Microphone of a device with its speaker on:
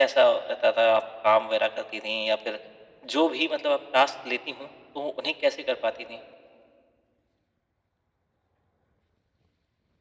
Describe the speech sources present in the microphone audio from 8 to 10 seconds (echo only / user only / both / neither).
neither